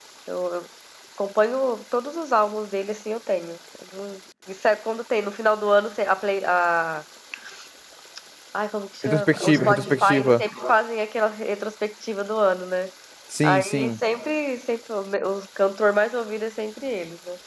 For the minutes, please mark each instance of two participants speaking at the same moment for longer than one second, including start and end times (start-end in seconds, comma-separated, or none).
9.0-10.4